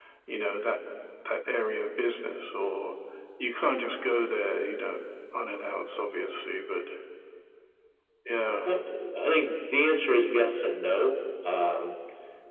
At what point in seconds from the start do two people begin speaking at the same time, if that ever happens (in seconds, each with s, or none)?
none